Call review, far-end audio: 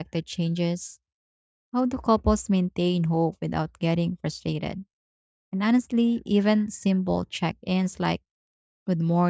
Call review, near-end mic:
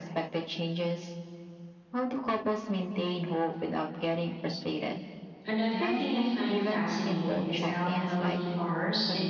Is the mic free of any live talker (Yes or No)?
No